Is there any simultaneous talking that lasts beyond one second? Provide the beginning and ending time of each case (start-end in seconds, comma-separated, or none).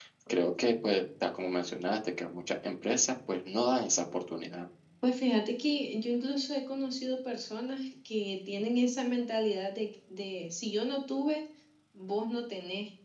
none